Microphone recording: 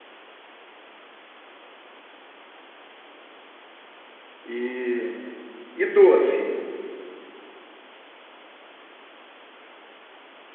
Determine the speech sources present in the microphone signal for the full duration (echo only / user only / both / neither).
user only